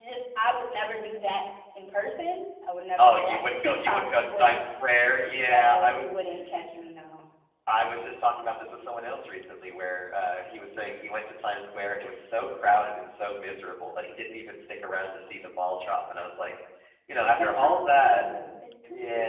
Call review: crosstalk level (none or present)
present